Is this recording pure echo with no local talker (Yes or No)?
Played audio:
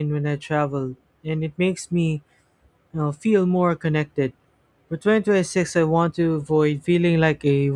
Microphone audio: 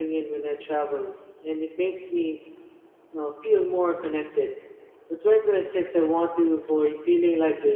Yes